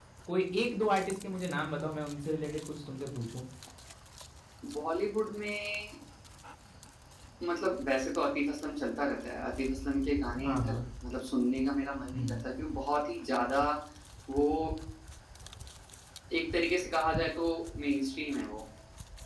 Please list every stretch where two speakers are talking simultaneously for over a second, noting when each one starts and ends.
none

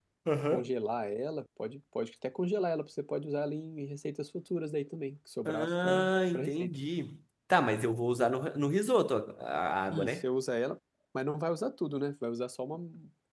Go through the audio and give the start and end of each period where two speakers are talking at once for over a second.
5.5-6.7

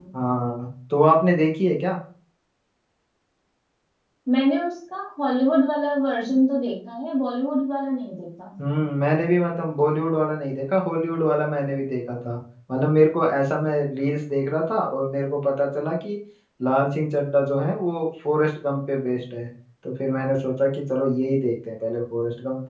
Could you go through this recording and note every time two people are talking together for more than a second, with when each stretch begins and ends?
none

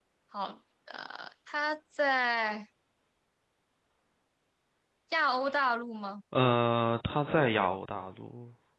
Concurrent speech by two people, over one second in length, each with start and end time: none

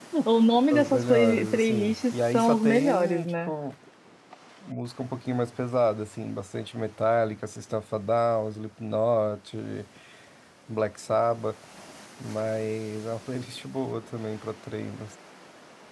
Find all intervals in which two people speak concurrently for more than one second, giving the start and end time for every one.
0.7-3.5

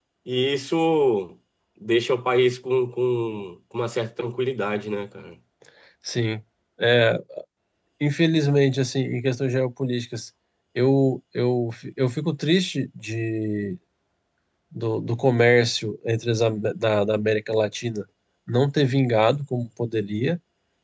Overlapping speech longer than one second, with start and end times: none

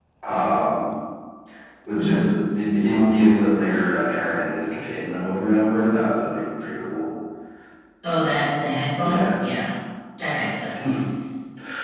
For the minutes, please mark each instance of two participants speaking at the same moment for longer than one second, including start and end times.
none

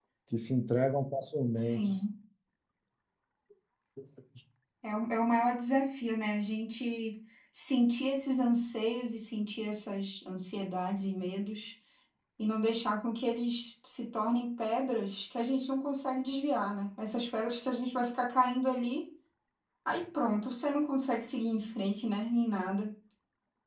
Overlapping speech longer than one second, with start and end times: none

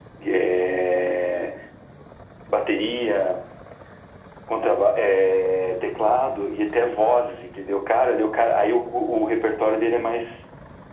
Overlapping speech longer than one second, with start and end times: none

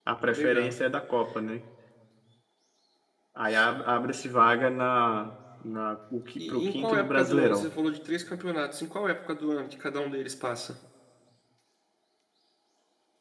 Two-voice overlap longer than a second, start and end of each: 6.4-7.7

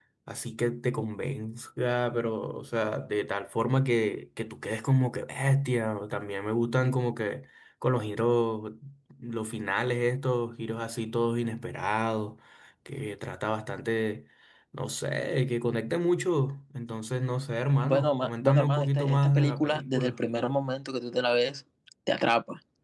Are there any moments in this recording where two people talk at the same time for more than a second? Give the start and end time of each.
17.8-20.2

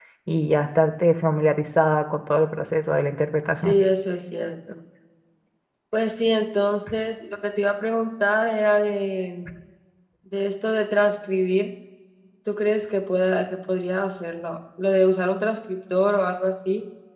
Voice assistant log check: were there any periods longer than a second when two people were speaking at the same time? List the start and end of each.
none

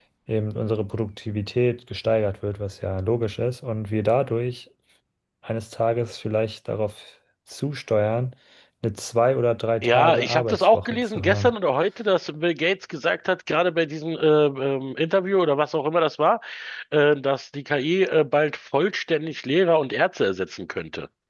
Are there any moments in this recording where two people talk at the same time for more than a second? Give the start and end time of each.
9.8-11.5

